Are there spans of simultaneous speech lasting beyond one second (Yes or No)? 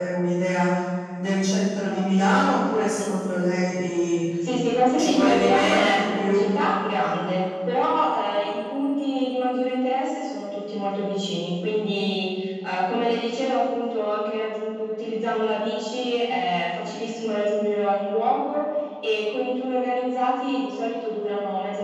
Yes